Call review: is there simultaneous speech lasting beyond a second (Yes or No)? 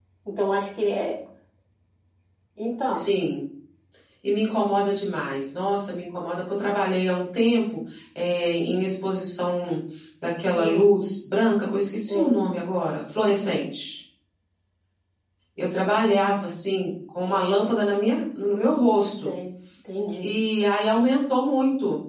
No